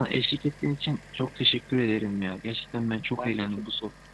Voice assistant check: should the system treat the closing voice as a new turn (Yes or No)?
No